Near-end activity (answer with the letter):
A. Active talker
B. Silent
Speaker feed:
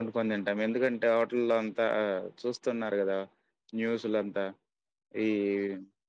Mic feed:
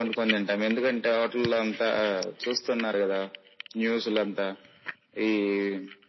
B